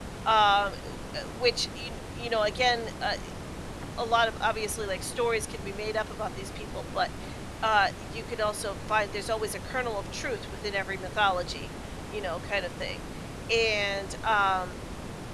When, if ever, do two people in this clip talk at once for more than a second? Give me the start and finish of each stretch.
none

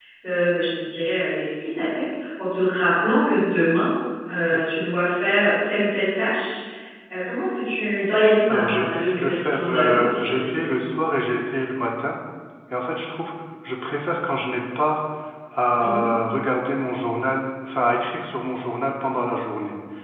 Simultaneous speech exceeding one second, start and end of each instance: 8.5-10.7

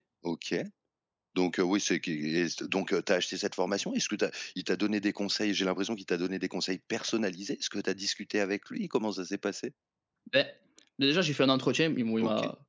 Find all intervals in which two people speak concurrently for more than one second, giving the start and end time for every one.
none

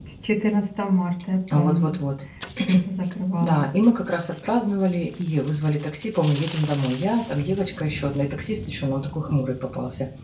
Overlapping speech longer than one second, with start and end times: none

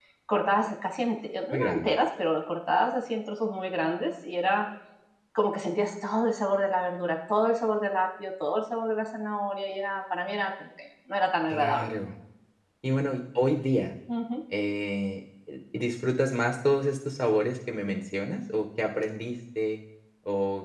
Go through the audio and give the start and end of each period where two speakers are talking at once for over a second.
none

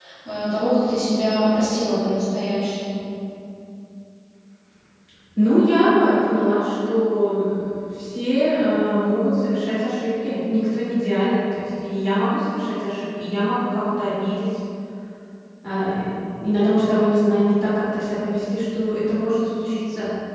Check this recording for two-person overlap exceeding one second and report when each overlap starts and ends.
none

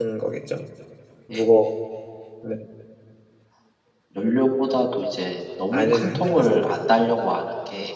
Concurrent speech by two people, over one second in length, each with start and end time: 5.7-7.0

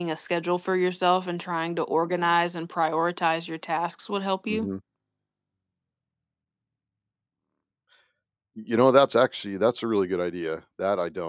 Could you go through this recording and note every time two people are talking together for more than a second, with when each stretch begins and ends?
none

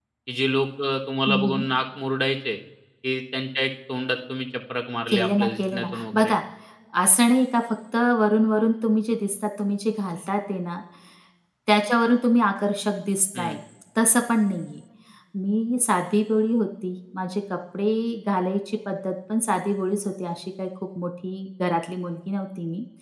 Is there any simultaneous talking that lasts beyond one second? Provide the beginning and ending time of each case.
5.1-6.3

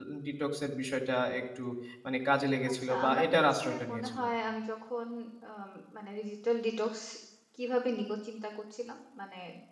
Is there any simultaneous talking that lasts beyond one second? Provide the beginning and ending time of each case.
2.7-4.3

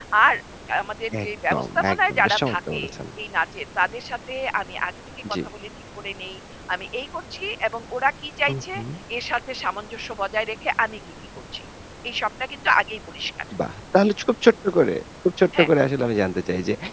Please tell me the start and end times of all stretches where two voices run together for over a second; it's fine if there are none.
1.2-2.8

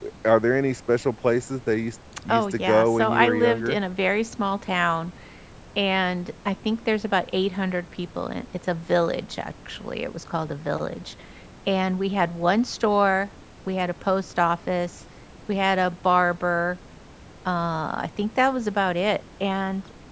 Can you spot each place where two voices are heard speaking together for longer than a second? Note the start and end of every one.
2.3-3.8

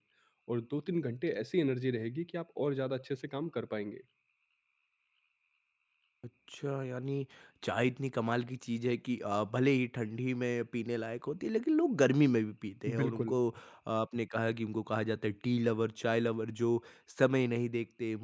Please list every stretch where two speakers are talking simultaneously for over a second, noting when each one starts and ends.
none

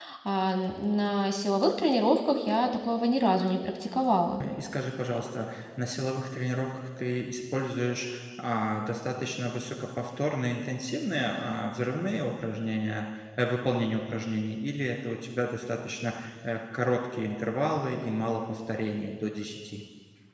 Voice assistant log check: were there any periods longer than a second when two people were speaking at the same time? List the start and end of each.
none

